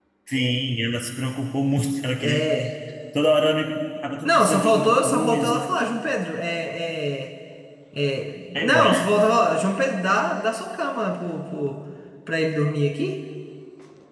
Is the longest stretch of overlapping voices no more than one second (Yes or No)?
No